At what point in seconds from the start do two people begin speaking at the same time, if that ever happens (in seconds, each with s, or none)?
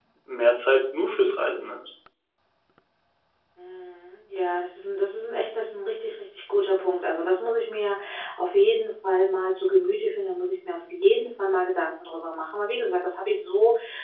none